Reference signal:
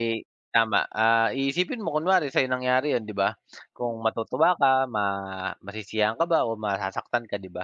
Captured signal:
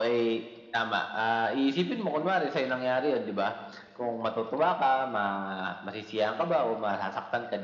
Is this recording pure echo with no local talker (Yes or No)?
Yes